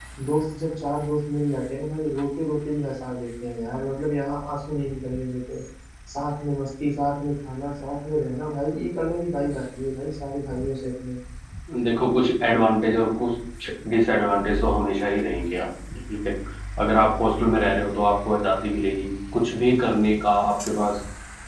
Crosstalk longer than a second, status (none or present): none